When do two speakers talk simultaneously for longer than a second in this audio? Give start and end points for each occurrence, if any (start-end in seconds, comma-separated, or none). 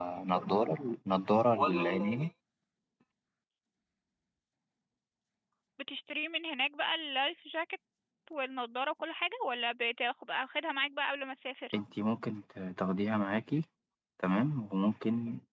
none